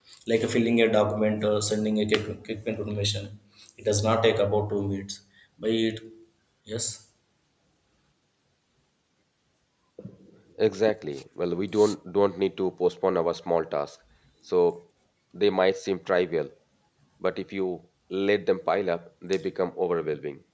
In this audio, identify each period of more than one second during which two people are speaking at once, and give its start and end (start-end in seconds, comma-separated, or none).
none